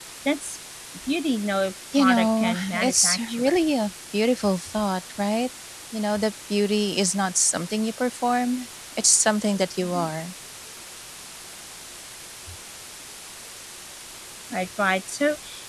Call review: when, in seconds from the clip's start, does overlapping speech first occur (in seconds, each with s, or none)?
2.0 s